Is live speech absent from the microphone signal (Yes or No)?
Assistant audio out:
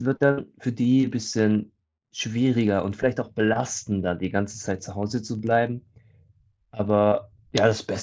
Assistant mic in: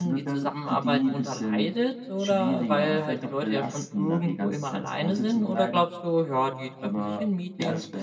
No